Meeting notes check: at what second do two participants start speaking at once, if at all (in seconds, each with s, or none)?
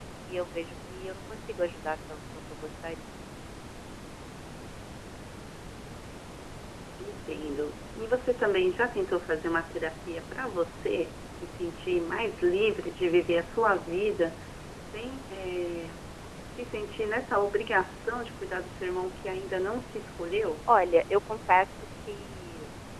none